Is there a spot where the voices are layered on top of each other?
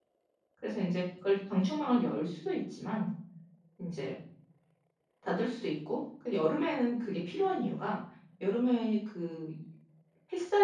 No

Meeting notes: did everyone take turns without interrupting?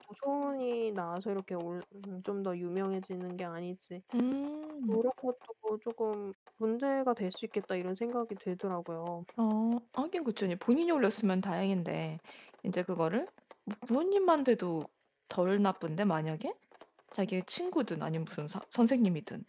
Yes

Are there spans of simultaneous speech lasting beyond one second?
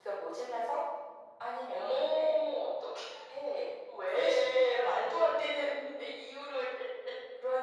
Yes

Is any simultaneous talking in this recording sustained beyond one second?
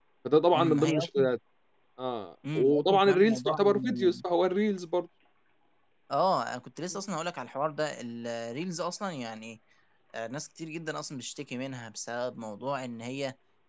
Yes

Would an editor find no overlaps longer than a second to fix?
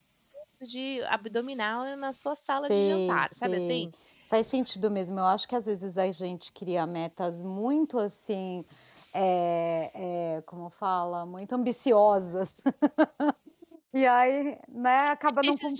No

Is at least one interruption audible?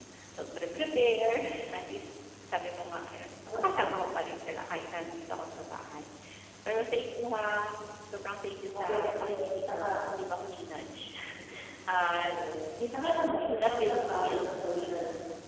Yes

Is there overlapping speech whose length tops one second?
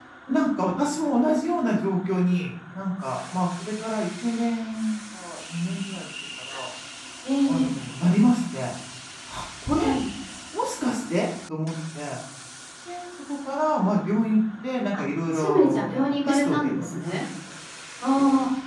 Yes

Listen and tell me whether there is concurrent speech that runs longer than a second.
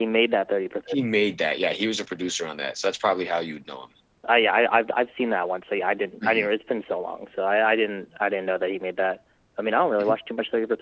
No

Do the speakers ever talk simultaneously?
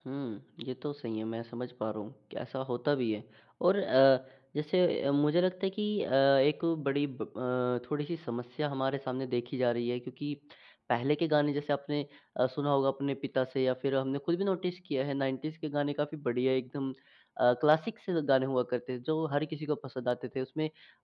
No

